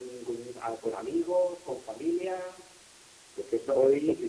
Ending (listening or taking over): listening